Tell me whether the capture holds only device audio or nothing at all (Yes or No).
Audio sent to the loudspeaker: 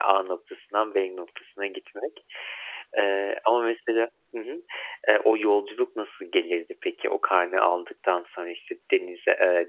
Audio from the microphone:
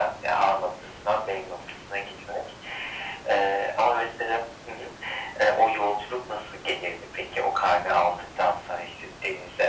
Yes